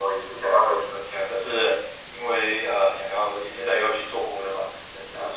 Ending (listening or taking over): listening